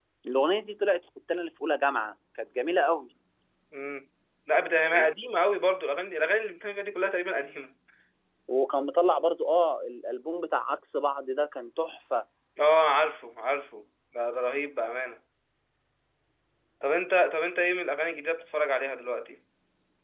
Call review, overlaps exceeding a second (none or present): none